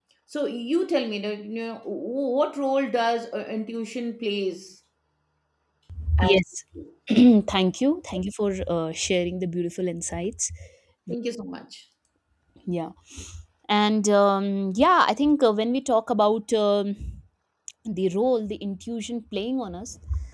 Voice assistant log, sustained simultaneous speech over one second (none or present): none